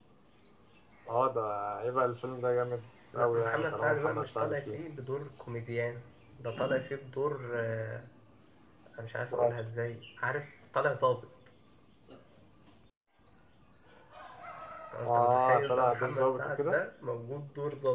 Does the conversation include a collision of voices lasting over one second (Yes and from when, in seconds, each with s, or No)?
Yes, from 3.1 s